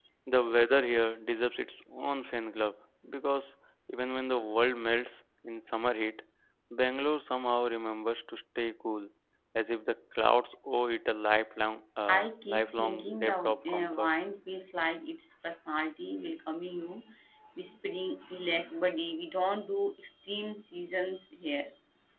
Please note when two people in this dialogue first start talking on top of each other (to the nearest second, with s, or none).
12 s